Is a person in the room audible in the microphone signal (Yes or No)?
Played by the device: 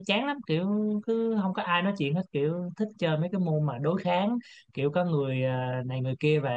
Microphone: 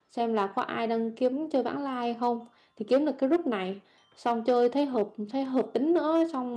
Yes